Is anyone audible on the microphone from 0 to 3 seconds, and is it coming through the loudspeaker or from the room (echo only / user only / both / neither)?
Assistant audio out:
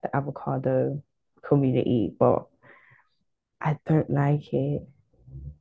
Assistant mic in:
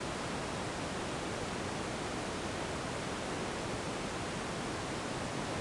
neither